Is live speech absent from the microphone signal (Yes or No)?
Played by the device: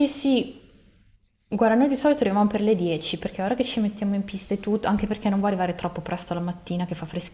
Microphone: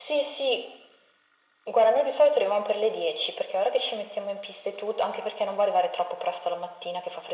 Yes